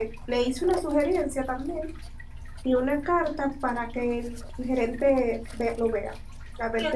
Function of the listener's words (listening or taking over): taking over